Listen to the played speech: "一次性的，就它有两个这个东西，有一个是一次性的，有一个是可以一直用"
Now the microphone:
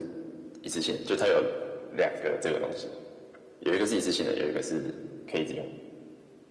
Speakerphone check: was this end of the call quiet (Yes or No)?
Yes